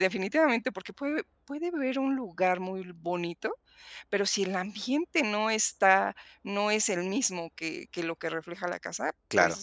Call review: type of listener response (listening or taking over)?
listening